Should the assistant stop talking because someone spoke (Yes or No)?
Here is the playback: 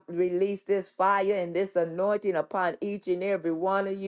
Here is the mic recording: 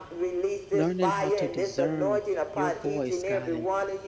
Yes